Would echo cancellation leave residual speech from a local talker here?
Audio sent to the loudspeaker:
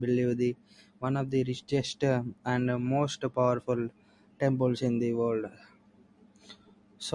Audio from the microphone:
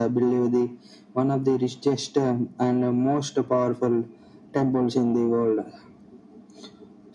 No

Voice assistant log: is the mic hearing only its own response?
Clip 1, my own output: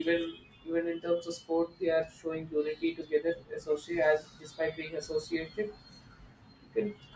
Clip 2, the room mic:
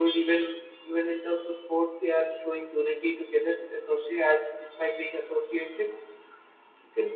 Yes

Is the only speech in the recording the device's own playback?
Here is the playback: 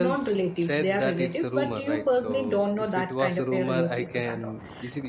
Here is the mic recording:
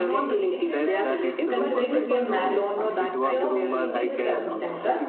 No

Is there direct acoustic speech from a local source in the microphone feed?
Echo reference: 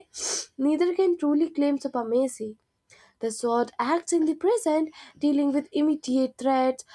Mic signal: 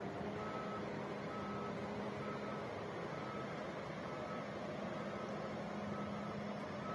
No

